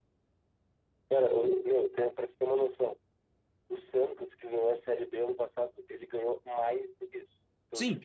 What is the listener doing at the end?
taking over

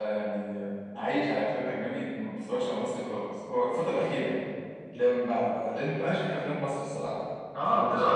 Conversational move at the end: taking over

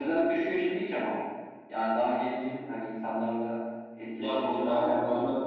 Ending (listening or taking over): taking over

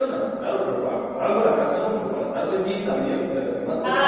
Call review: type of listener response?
taking over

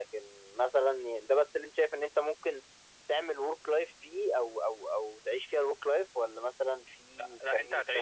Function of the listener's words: taking over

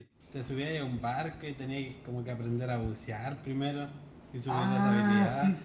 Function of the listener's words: taking over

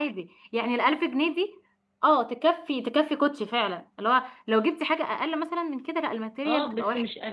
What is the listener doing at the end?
taking over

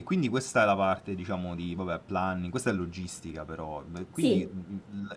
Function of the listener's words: listening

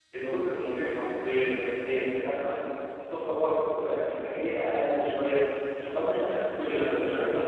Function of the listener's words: listening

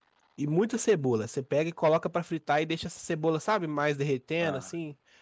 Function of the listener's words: listening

